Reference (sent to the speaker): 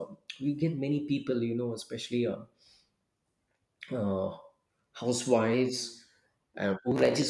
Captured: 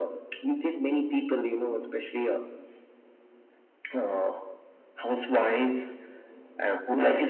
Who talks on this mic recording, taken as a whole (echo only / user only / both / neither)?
echo only